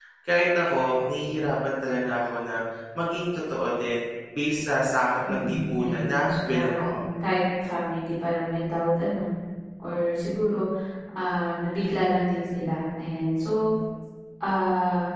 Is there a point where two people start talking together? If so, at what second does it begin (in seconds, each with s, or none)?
5.2 s